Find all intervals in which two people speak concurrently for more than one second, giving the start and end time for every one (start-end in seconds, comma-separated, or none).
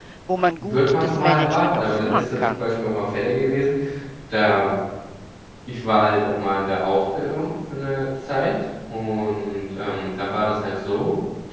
0.6-2.7